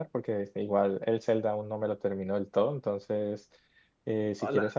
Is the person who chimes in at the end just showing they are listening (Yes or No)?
Yes